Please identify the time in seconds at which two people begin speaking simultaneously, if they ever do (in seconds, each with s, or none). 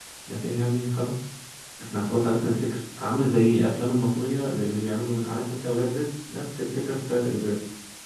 none